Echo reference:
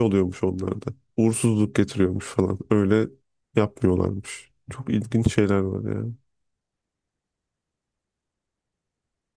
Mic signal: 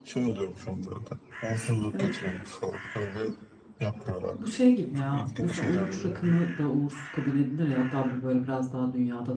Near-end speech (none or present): present